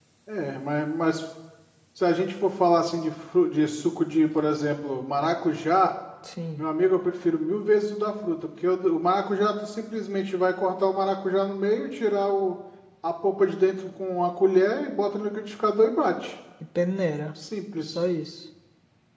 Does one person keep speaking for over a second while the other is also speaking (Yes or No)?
No